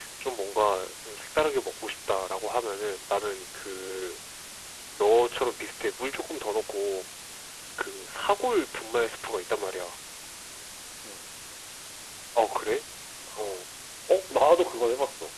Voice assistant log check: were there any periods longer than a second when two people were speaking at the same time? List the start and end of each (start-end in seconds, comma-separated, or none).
none